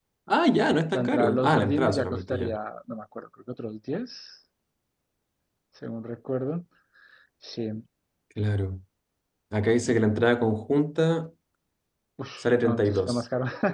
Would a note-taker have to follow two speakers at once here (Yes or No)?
Yes